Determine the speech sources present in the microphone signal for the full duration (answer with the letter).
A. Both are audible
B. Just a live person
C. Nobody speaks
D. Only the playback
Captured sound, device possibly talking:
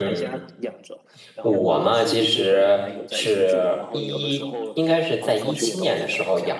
A